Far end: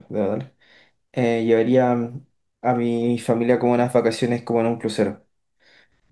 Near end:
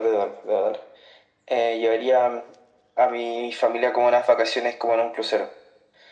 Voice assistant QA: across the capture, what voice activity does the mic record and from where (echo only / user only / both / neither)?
echo only